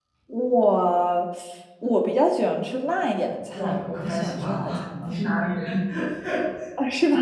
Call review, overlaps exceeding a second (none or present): present